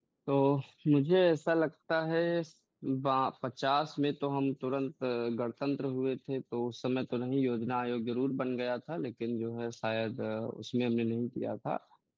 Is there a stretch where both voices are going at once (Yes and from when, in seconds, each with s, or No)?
No